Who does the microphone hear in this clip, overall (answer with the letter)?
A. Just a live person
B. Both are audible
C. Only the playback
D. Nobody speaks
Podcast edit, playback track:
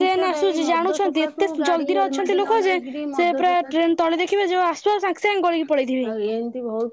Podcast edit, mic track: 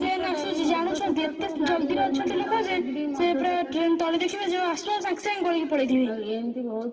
C